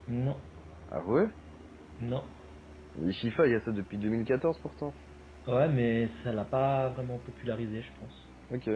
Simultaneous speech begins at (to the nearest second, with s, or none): none